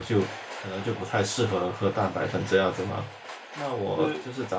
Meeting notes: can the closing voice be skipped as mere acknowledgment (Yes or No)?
Yes